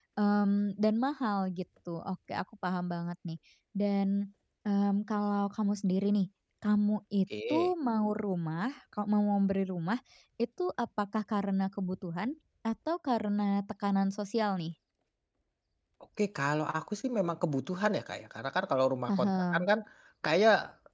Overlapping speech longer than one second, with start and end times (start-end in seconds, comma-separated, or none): none